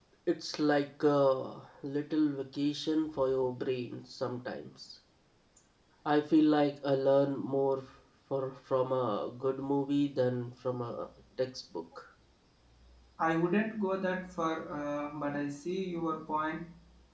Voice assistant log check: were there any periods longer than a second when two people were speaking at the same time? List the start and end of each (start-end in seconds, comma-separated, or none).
none